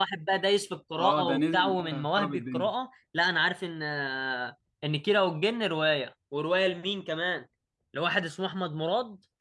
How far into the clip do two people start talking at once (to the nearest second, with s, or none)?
1 s